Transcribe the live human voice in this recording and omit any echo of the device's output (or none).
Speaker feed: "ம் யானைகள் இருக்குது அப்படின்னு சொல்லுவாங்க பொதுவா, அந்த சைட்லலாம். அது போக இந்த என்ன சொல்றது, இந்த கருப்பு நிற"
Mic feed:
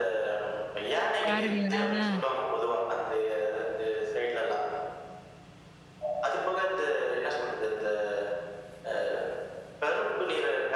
பாருங்களேன். ஆ.